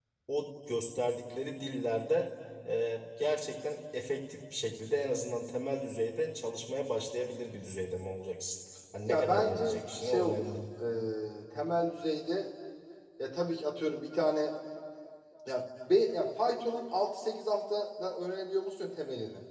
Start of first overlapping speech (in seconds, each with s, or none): 9.1 s